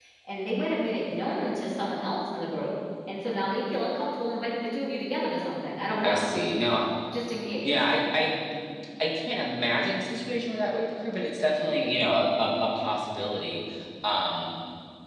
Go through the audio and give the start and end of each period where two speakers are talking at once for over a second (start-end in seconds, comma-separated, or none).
none